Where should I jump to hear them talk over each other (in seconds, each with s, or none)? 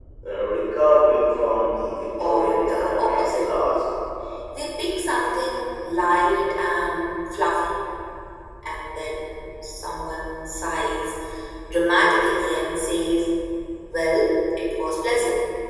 2.2 s